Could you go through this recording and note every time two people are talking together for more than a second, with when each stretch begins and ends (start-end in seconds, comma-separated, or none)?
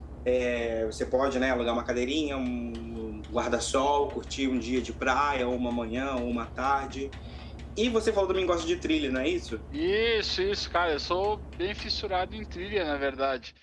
none